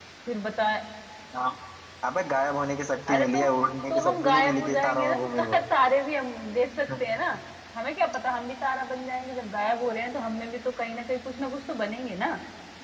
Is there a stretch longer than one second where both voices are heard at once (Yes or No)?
Yes